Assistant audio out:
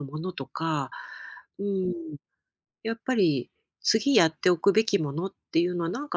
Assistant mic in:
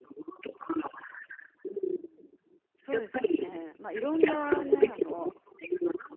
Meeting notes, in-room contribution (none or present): present